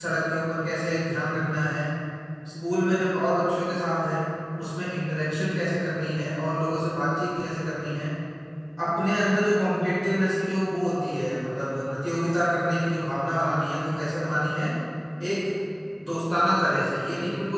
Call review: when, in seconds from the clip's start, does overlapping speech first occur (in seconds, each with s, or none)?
none